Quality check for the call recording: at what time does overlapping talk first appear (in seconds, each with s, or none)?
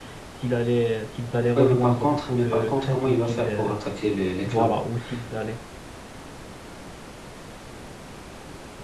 1.6 s